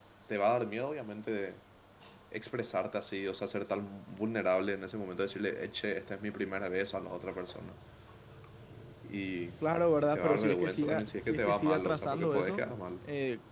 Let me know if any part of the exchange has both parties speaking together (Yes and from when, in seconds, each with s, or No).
Yes, from 10.0 s